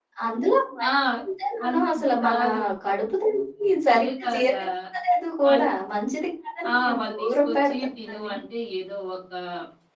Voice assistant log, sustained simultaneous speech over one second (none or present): present